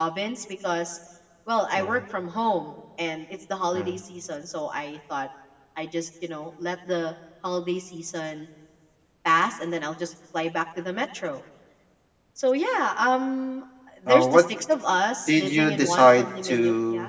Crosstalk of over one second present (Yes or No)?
Yes